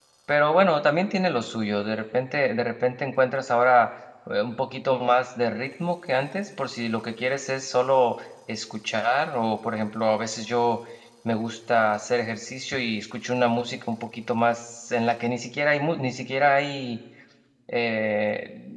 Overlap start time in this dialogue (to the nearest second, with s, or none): none